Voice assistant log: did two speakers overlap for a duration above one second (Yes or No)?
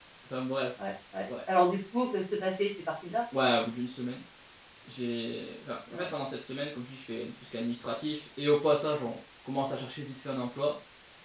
No